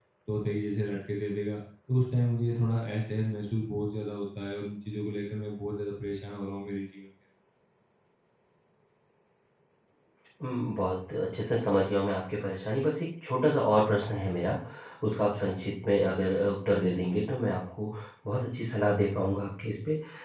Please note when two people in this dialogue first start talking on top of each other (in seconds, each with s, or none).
none